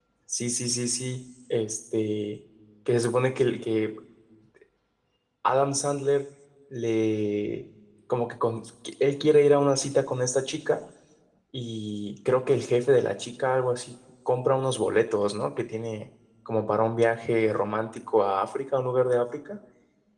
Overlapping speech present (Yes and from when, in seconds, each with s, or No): No